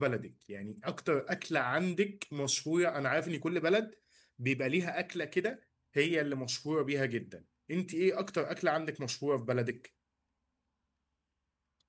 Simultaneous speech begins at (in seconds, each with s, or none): none